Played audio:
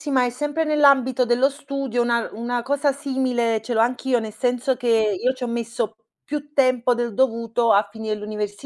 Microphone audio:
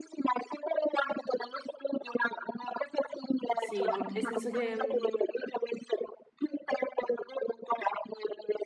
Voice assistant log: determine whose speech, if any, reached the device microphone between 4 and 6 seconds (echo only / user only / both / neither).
both